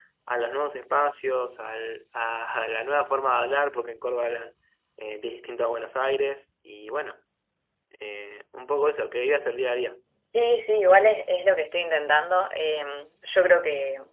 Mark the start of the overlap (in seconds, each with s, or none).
none